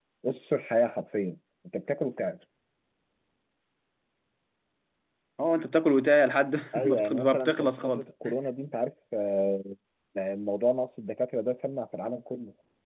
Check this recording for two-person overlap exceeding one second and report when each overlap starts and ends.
6.8-8.0

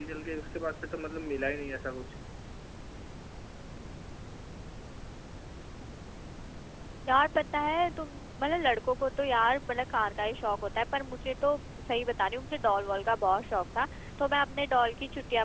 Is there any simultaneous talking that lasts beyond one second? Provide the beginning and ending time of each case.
none

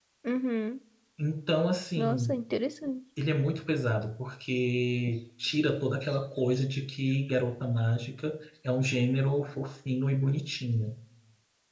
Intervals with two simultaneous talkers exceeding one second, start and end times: none

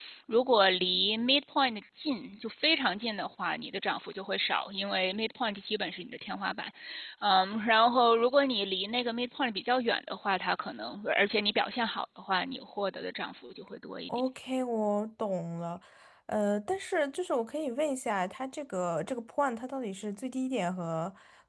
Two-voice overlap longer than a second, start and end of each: none

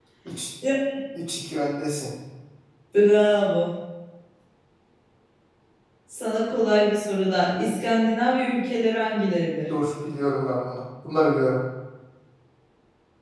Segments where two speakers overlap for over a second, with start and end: none

